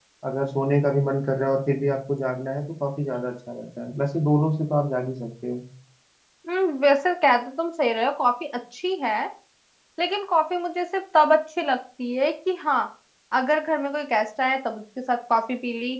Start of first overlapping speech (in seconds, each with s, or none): none